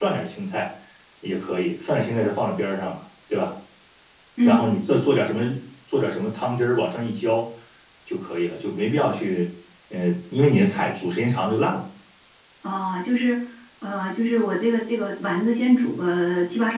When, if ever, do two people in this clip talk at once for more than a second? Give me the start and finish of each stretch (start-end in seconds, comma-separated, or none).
none